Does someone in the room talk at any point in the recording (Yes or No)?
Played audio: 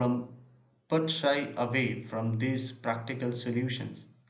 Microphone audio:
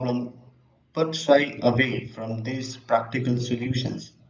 No